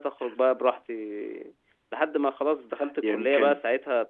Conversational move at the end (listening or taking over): listening